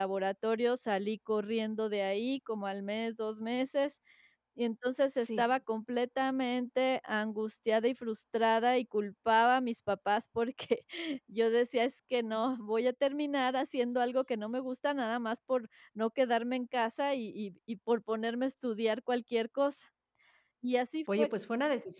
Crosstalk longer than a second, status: none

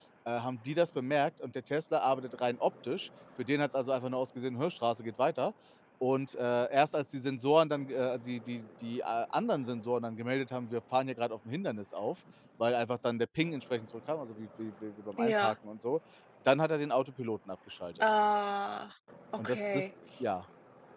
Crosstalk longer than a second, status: none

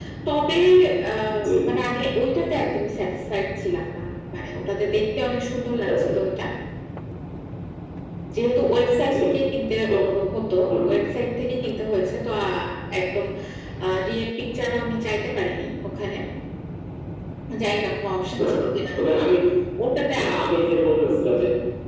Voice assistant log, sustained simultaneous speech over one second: none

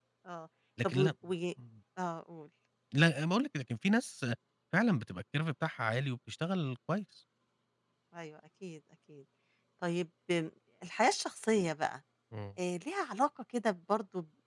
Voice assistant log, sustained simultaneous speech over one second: none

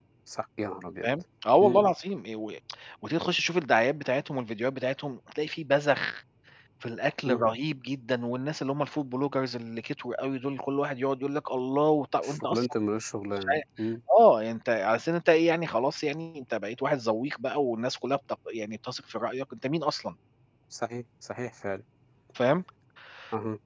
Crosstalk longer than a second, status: none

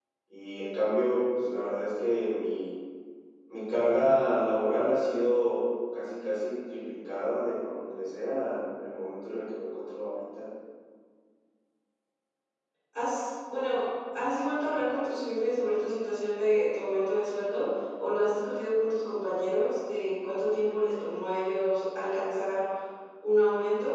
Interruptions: none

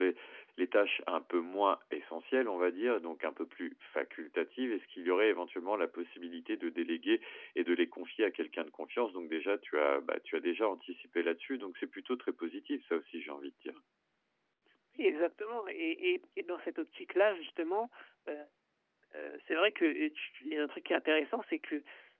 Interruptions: none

